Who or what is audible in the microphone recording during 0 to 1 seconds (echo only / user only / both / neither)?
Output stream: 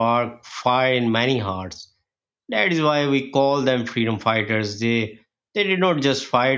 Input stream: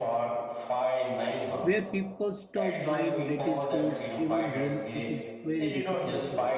echo only